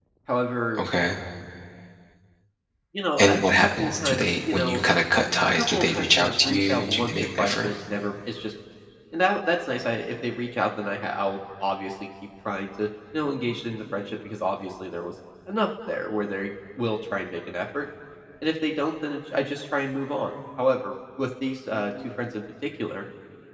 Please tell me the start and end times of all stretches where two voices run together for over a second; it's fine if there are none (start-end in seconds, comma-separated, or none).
3.2-4.8, 5.6-7.7